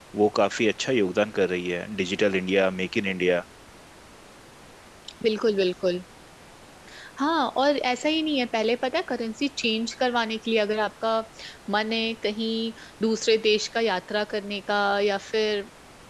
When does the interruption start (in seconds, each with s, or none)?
none